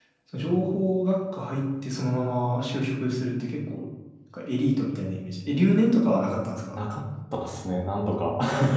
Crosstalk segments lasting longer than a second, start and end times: none

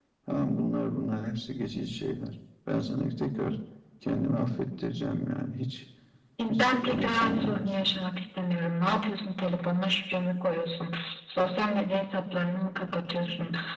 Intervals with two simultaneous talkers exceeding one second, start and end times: 6.5-7.9

